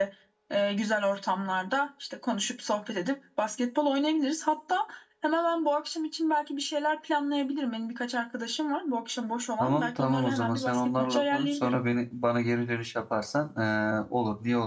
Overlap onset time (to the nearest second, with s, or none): 10 s